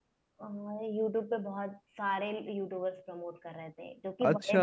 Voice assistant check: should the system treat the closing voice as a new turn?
Yes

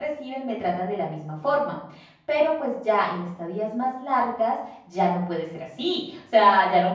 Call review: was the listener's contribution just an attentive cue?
Yes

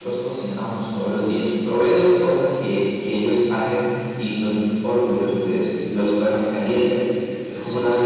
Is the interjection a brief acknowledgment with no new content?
Yes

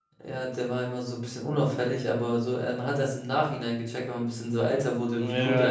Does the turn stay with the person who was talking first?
No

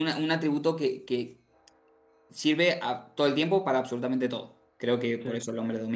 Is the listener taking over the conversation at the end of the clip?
No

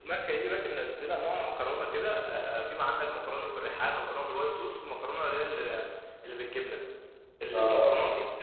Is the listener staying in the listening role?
Yes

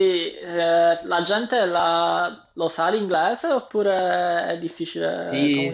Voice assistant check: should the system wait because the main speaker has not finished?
No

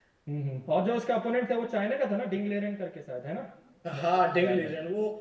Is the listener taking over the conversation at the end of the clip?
Yes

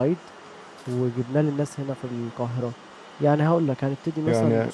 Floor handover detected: Yes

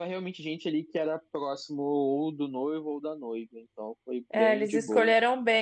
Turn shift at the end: Yes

